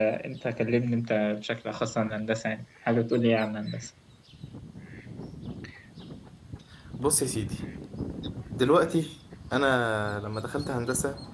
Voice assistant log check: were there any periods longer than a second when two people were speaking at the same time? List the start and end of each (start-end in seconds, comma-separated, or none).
none